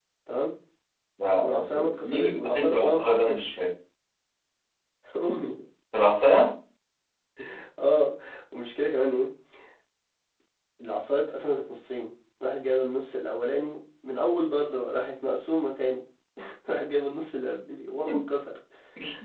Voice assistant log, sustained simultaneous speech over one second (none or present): present